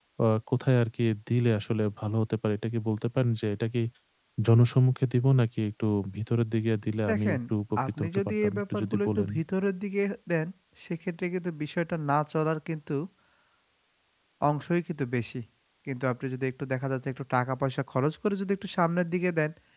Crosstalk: present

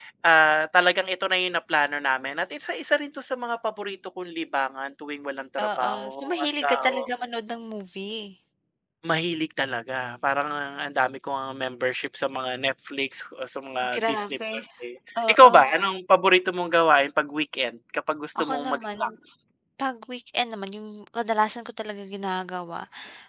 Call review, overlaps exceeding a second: present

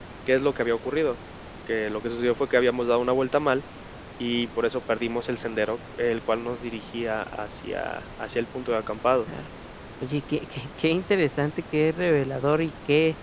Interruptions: none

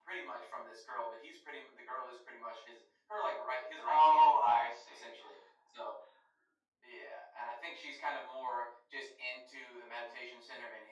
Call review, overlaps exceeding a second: present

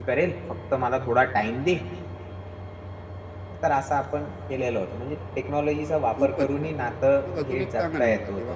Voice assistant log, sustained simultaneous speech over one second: present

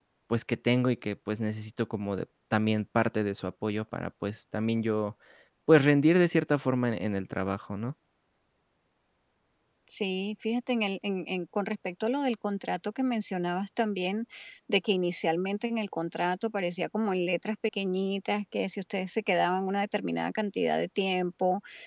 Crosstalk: none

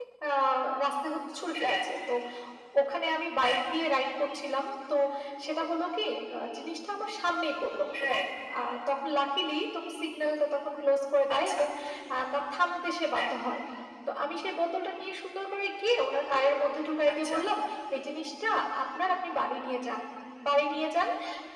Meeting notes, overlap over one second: none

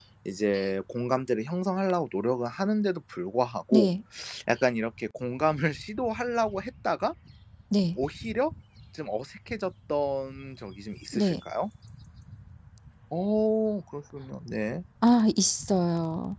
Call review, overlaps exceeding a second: none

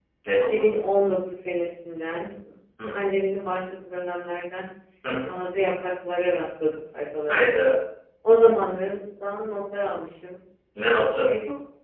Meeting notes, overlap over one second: none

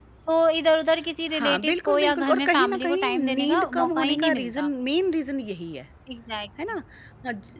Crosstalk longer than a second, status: present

